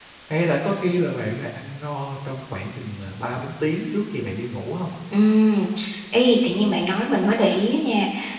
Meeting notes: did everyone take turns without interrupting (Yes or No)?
Yes